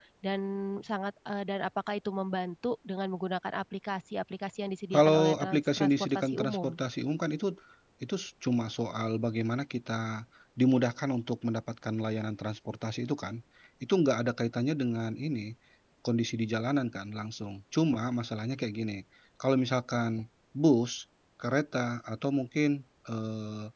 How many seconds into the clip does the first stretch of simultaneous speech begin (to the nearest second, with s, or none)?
5 s